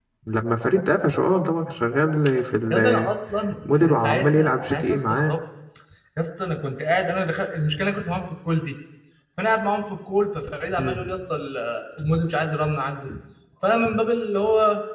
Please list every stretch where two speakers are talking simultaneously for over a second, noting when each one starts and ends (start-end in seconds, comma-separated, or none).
3.7-5.3